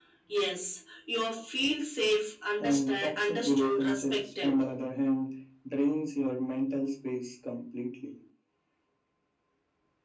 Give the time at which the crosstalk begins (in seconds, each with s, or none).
2.6 s